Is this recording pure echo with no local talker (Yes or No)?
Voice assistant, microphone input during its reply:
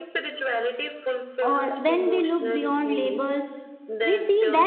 No